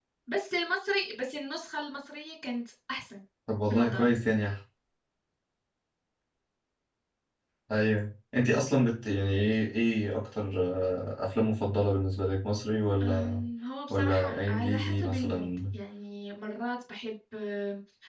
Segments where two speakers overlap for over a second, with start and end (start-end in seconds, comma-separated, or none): 13.9-15.4